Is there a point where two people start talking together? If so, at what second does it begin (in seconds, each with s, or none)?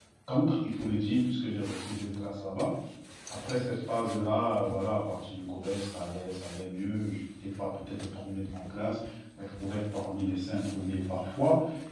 none